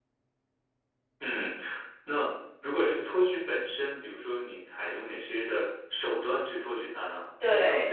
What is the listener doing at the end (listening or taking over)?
listening